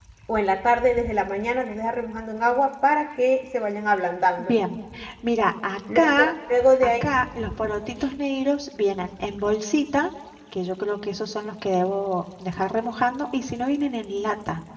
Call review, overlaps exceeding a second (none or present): none